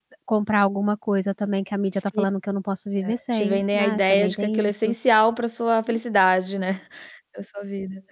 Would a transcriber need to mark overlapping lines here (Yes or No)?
Yes